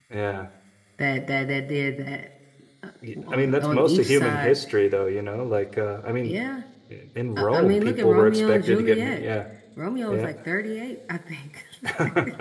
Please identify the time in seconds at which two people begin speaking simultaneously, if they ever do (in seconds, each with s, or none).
3.3 s